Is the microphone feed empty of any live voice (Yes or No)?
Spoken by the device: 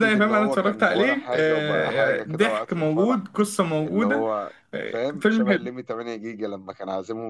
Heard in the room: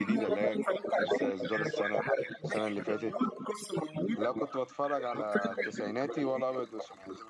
No